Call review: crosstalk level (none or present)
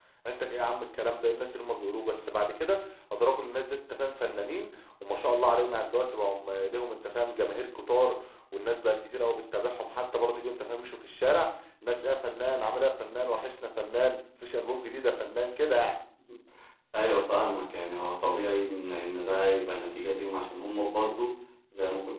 none